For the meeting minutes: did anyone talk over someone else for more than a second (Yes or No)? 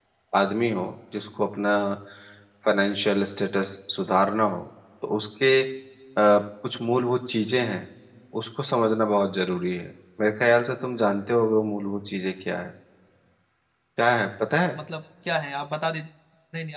No